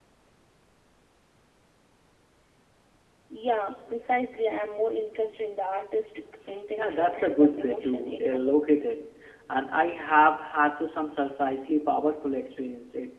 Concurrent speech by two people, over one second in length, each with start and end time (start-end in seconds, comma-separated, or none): 6.8-8.8